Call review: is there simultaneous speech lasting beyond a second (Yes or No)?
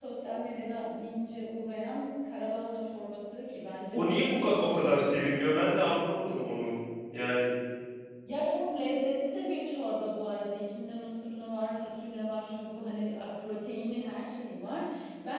Yes